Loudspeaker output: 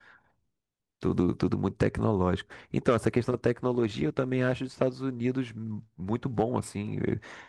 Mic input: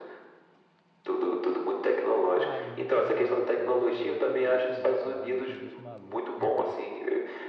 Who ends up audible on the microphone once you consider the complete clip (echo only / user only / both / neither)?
both